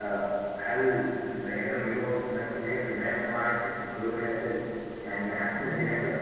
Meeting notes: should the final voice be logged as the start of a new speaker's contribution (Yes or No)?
No